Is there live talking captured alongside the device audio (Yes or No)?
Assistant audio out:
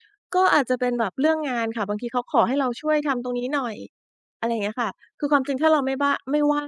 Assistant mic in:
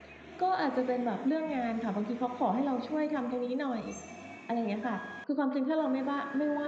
No